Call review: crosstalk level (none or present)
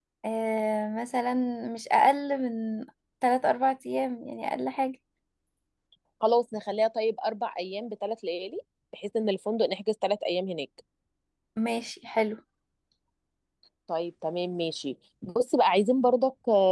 none